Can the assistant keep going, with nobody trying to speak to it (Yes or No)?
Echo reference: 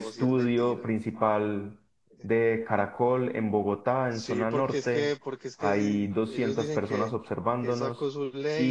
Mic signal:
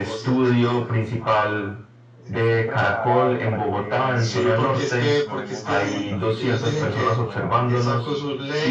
No